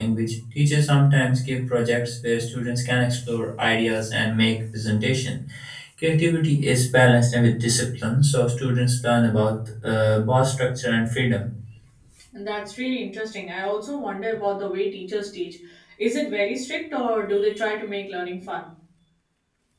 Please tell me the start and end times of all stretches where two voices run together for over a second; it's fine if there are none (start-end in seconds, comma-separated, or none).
none